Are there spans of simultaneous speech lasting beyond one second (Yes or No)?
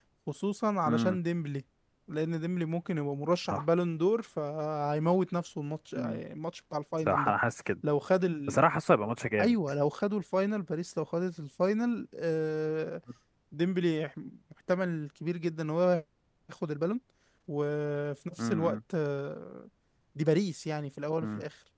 No